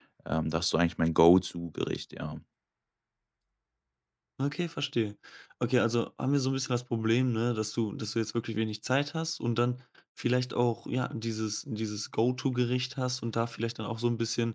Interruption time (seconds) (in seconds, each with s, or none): none